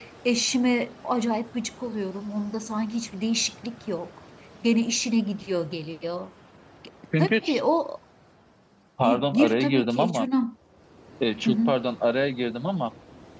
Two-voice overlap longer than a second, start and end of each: 9.0-10.3

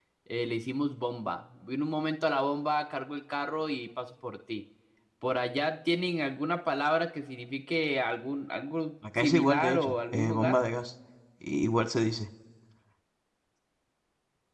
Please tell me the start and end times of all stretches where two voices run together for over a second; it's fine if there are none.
9.2-10.6

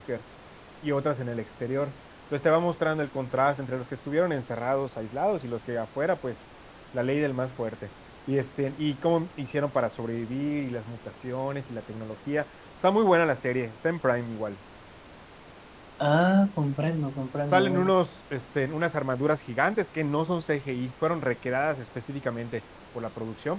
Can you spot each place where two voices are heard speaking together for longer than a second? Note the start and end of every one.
none

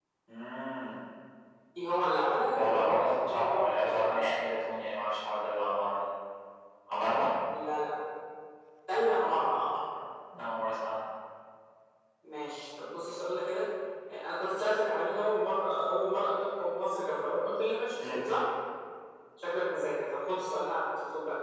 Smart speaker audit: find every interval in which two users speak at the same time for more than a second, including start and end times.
2.6-4.3

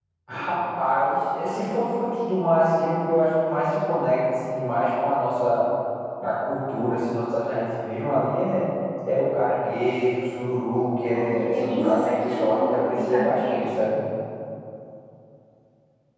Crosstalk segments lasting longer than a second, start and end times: 11.1-13.8

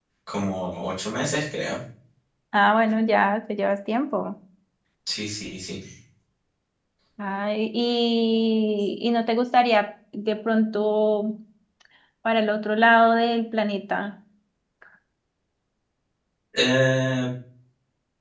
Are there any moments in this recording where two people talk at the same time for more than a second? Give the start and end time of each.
none

